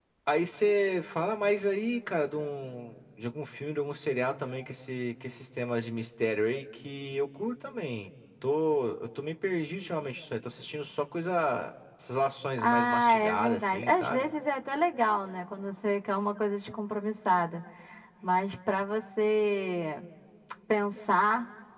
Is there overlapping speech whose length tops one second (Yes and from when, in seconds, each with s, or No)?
Yes, from 12.6 s